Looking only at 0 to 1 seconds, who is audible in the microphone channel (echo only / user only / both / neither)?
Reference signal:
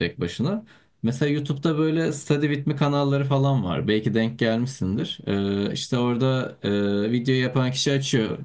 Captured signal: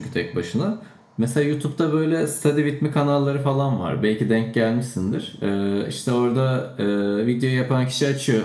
echo only